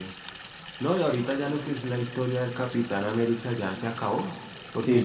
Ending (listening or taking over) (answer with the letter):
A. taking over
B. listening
B